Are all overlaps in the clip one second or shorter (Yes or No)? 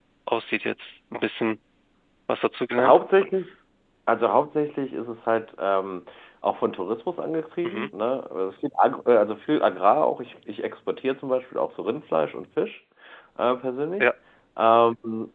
Yes